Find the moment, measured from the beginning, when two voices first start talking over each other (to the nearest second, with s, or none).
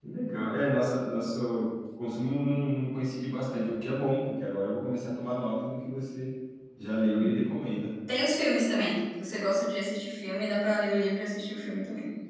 none